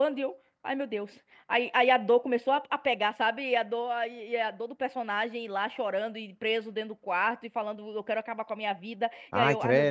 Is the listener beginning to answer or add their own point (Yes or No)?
No